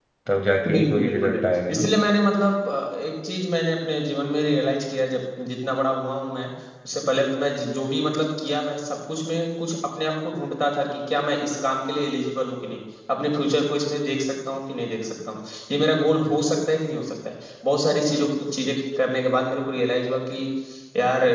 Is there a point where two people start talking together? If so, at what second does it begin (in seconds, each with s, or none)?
0.7 s